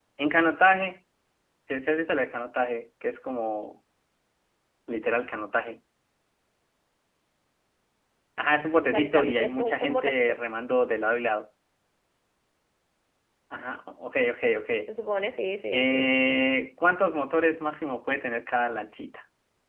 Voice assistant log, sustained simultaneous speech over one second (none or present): present